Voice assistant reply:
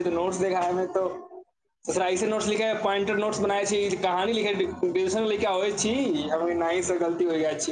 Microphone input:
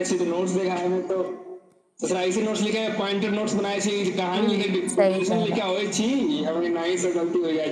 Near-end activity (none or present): present